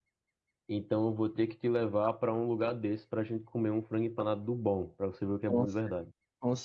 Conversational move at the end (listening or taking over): taking over